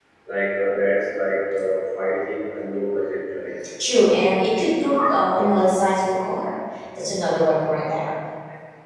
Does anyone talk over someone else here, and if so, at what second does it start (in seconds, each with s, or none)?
none